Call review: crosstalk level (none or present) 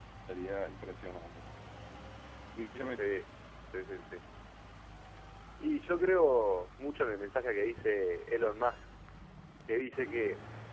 none